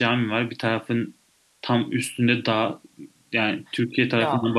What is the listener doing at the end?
listening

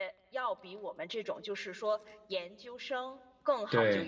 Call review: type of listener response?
listening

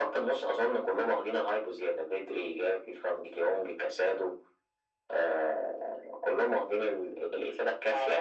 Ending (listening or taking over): taking over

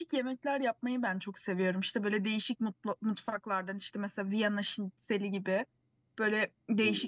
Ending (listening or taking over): listening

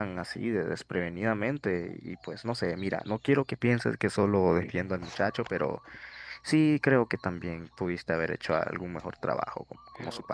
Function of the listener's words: taking over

